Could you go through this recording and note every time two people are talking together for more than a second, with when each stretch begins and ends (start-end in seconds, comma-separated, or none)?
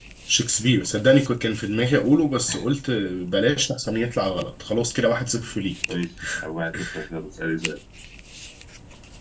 none